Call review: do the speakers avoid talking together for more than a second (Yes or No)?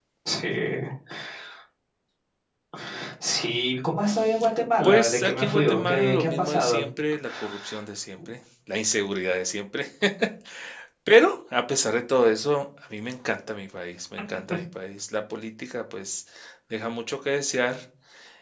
No